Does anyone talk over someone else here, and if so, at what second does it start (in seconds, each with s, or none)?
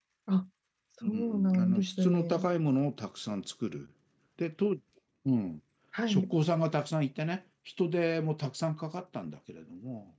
1.1 s